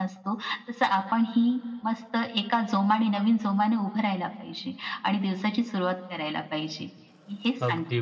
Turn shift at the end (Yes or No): Yes